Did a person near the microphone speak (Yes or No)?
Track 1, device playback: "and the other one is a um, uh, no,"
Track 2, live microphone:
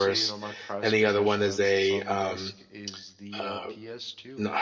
Yes